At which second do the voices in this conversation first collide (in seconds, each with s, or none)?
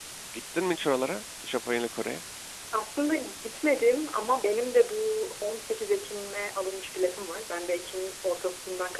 none